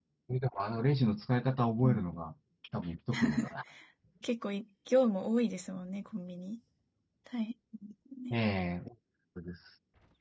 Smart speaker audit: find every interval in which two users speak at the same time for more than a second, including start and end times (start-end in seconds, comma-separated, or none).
none